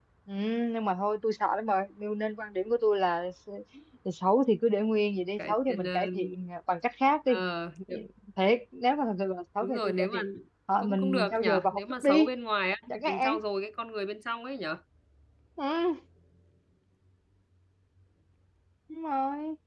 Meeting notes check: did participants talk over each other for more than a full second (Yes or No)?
Yes